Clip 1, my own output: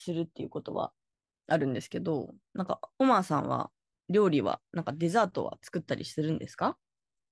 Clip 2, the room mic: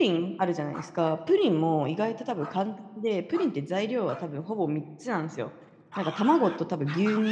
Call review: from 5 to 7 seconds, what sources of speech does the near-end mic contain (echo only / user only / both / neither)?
user only